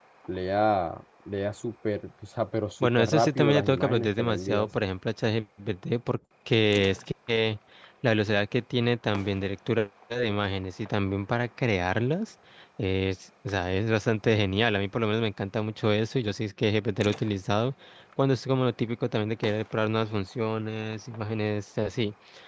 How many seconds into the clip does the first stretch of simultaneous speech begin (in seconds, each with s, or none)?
2.8 s